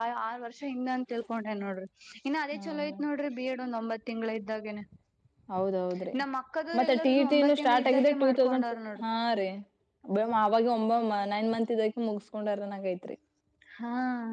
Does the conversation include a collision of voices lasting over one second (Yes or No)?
Yes